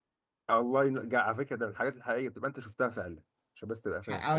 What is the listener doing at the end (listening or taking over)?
taking over